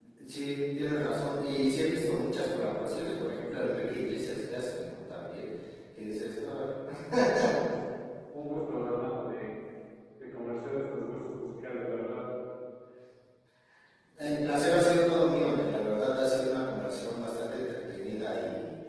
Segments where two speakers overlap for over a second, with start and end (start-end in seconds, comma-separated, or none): none